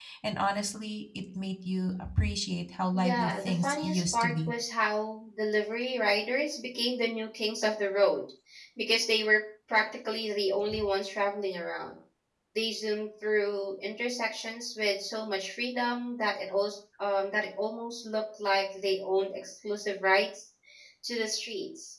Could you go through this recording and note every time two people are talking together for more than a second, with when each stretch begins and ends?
2.9-4.5

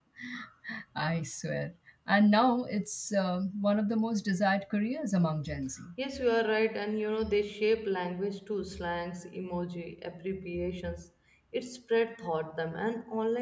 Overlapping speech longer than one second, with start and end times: none

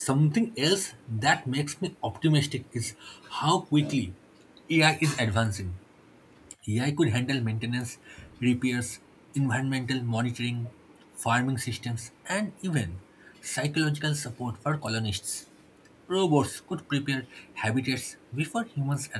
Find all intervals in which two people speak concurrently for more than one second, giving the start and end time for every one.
none

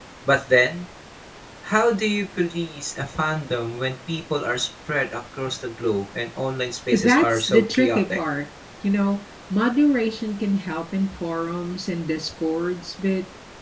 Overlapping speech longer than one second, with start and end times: 6.9-8.2

